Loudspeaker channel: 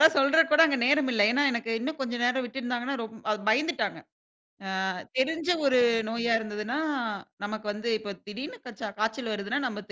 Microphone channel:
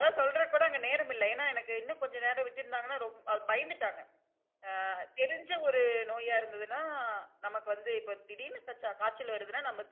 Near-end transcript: none

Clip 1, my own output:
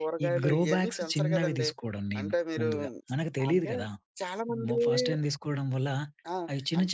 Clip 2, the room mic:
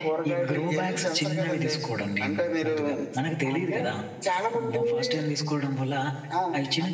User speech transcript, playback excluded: none

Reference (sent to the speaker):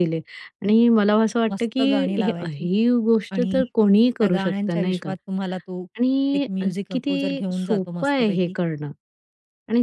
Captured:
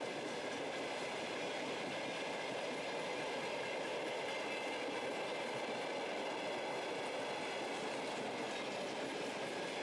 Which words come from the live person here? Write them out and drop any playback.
none

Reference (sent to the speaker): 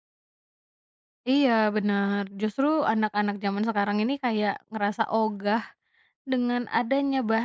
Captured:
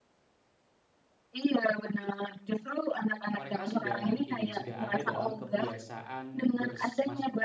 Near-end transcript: mereka sudah ini, sudah ada dalam kebiasaan bers

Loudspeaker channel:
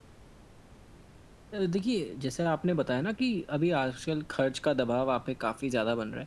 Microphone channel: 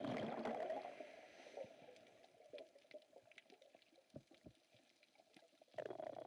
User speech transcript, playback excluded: none

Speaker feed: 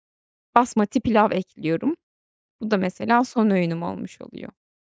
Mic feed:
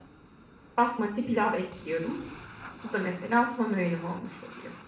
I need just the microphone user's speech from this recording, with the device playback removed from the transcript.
none

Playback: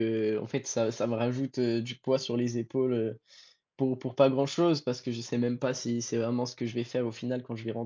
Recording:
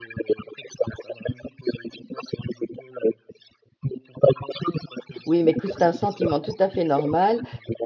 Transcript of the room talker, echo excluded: Oui, mais écoute, c'est un sentiment tout à fait normal.

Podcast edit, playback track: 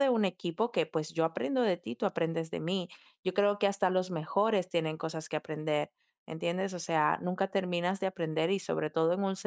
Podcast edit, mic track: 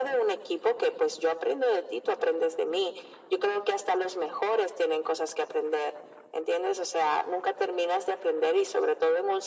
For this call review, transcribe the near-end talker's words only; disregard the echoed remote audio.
none

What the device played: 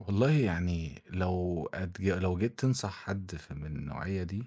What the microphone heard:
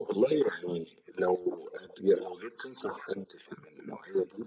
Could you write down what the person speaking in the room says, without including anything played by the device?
none

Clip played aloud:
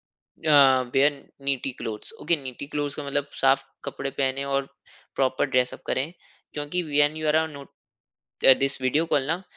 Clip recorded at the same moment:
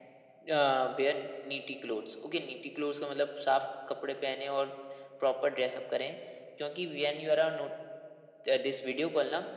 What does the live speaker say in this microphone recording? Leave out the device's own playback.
none

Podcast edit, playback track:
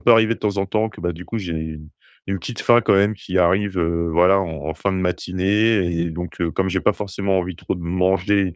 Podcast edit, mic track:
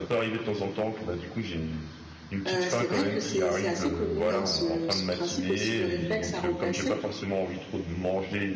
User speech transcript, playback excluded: heu, c'est vrai que c'est c'est assez connu, hein, ce ce principe aussi de réflexe à remplacer

